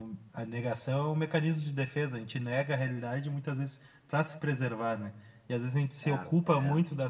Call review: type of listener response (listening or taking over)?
listening